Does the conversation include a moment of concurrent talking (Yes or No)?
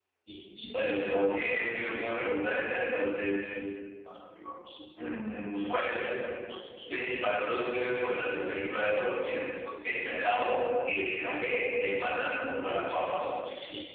Yes